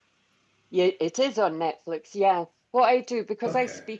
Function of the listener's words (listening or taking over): listening